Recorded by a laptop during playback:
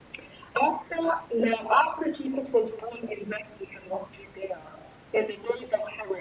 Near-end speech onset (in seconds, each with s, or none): none